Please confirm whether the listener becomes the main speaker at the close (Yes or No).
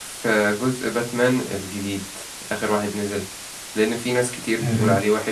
No